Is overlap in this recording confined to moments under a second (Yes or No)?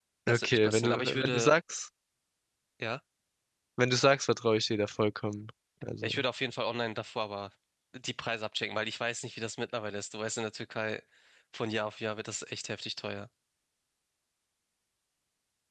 No